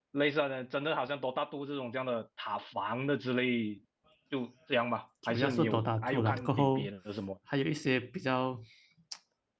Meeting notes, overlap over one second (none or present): present